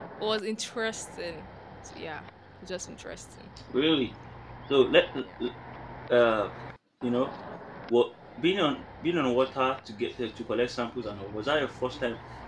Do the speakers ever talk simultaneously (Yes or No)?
No